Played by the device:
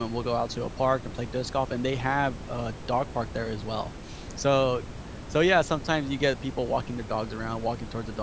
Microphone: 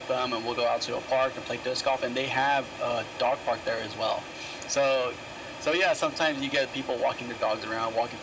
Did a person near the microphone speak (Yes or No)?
No